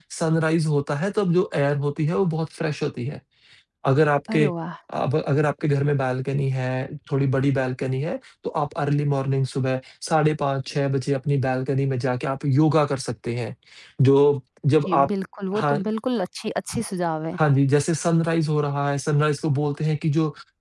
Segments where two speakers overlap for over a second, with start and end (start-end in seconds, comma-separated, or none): none